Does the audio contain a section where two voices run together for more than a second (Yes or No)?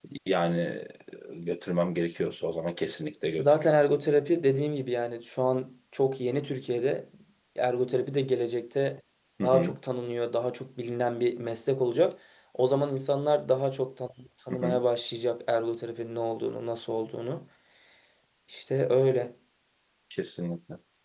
No